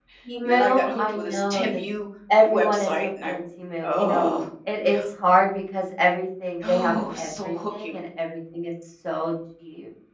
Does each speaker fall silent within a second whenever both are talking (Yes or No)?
No